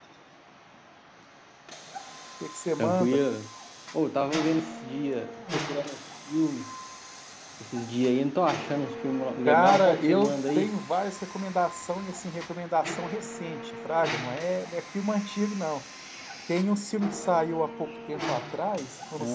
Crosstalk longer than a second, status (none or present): present